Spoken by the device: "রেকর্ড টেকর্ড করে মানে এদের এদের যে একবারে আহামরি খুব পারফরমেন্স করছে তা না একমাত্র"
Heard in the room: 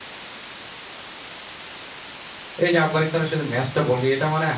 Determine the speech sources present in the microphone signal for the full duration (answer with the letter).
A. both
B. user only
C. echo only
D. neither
B